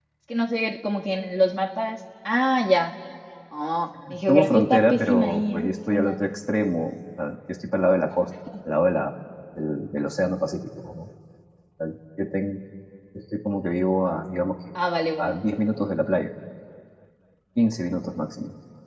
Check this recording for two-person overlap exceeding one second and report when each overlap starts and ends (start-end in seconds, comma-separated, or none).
4.3-6.2